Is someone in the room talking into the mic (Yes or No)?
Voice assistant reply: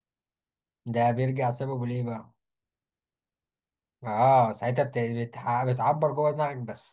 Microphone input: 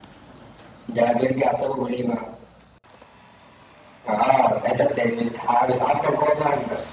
No